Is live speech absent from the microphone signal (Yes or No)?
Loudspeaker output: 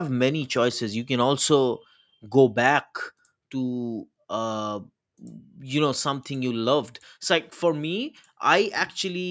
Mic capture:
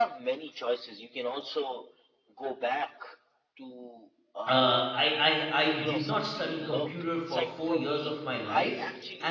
No